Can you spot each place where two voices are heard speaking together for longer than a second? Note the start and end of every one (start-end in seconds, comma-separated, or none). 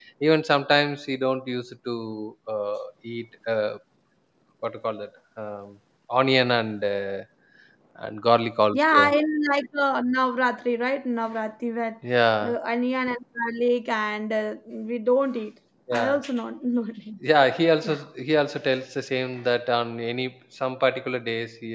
none